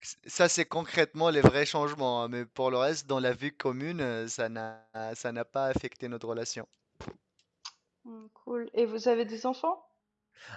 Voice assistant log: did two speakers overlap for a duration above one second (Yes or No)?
No